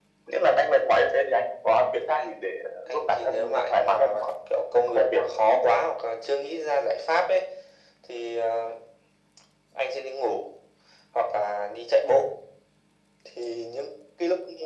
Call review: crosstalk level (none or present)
present